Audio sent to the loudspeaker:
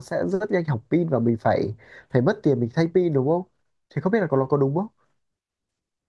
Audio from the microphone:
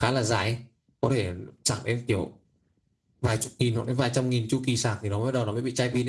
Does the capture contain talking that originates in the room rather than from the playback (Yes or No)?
Yes